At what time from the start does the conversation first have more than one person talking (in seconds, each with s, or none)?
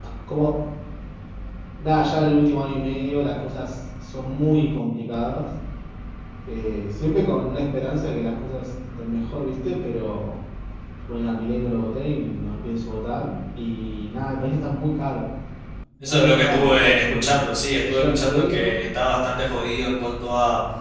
16.0 s